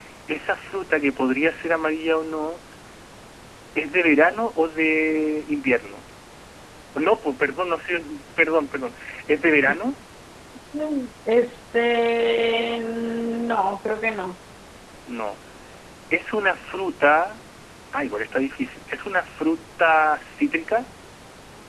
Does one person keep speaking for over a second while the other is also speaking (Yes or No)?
No